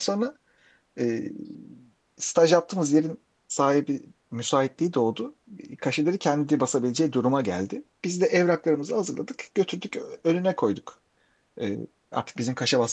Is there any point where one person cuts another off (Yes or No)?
No